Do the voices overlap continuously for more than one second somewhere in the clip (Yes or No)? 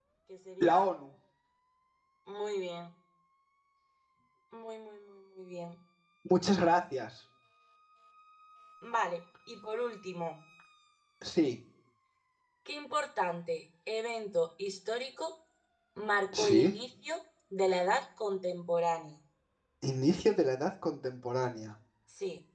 No